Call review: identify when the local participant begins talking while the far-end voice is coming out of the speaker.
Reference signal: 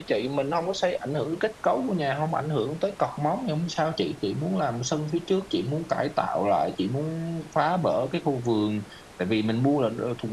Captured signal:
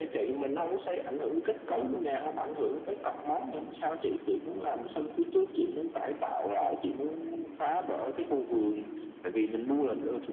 1.6 s

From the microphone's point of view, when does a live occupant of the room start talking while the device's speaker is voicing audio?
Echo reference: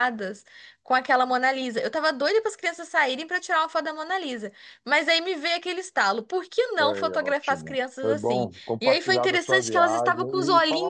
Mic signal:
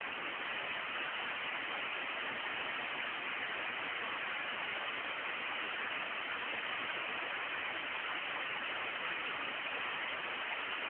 none

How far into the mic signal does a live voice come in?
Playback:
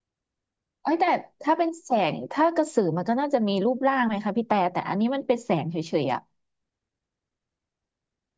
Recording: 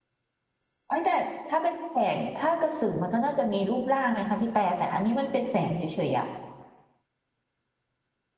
none

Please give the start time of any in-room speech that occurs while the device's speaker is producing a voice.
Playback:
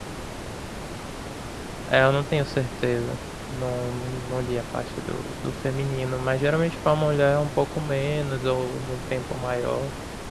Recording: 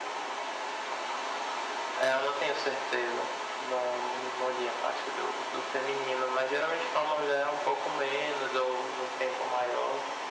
none

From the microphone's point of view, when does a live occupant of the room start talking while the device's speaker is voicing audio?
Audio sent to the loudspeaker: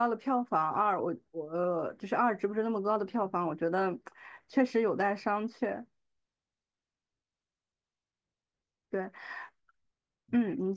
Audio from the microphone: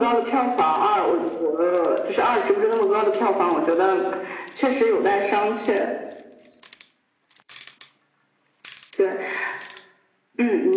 none

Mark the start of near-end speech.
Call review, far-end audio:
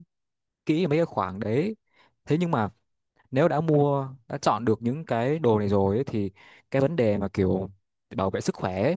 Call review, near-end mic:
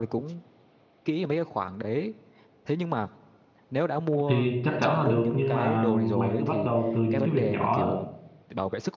4.3 s

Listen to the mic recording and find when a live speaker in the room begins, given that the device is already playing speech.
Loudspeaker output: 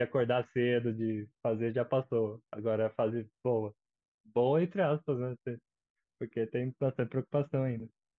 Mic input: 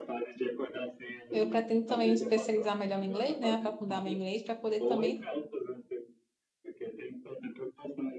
1.3 s

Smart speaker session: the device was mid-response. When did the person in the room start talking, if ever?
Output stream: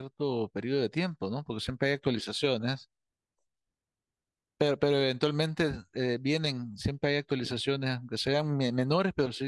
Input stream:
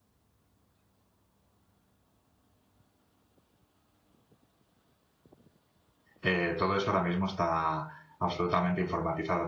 6.2 s

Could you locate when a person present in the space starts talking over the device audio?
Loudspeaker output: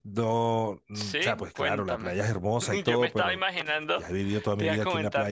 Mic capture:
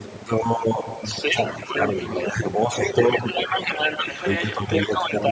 4.1 s

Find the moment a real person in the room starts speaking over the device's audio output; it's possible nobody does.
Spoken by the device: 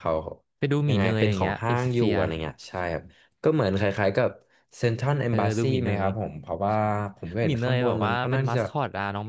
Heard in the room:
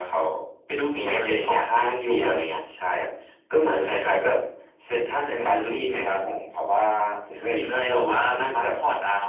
none

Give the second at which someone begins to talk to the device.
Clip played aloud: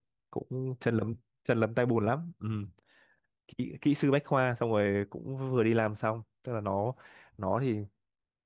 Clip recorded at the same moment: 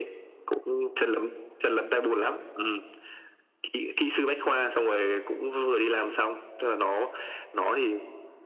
none

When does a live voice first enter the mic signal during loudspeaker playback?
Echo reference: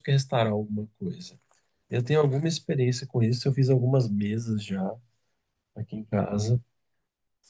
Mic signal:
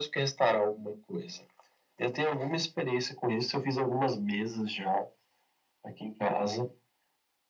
none

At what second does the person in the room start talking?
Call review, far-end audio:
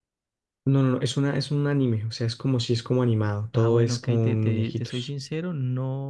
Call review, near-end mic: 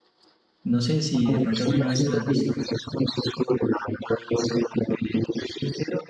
0.6 s

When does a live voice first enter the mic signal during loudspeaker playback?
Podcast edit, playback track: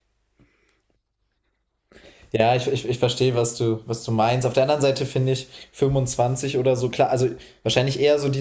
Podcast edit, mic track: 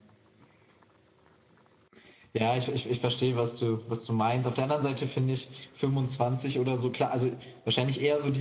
none

